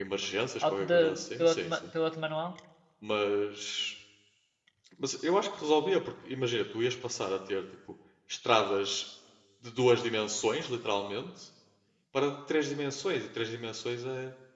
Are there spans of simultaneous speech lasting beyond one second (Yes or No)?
No